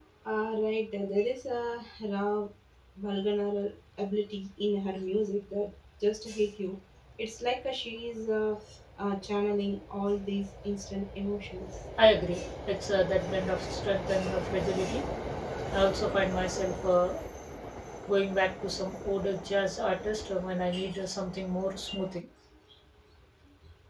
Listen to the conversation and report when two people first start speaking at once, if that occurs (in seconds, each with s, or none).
none